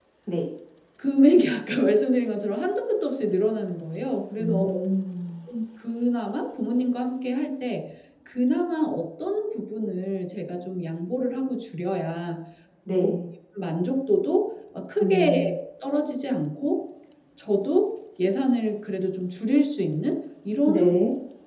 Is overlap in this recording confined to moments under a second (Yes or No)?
Yes